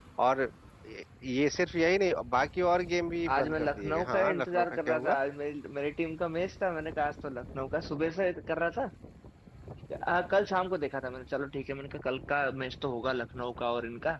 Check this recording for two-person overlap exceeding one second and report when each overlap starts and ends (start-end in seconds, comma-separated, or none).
3.3-5.2